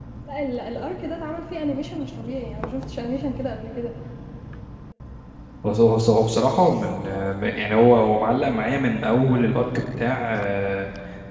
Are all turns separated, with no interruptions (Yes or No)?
Yes